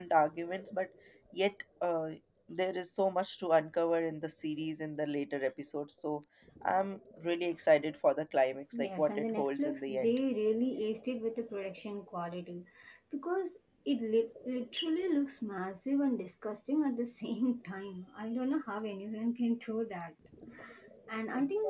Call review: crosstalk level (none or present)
present